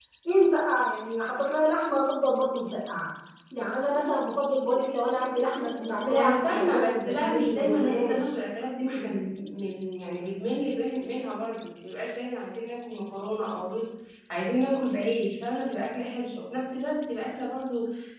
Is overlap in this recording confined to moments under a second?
No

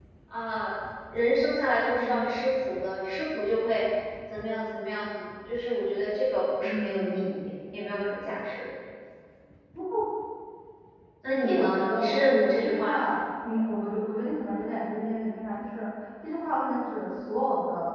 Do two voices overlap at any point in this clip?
Yes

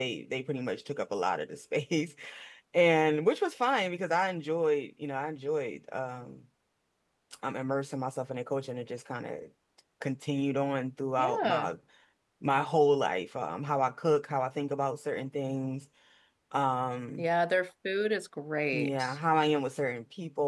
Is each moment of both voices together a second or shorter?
Yes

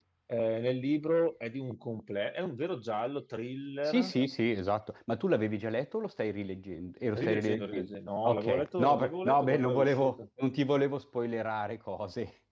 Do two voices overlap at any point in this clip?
Yes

